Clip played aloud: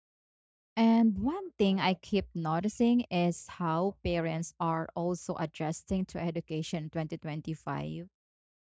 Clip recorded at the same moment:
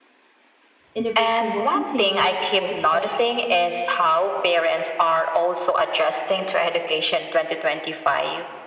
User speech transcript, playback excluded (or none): Innovation will continue, of course, but